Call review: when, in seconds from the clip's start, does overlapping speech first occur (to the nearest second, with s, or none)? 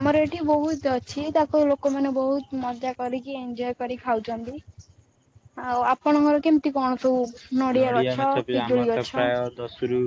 8 s